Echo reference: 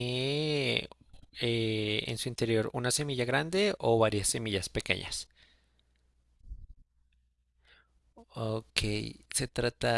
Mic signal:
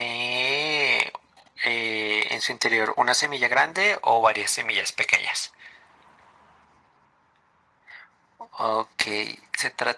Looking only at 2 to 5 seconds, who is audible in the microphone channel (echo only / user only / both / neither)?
echo only